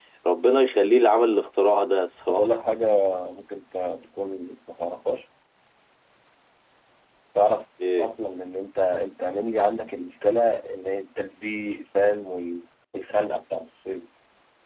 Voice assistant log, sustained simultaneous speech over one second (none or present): none